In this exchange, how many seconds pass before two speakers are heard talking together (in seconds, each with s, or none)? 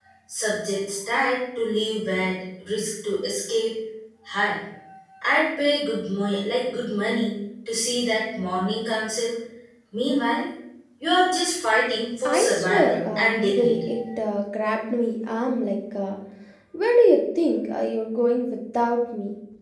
12.2 s